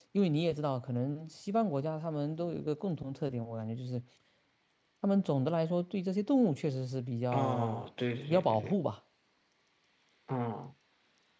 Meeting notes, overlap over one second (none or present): none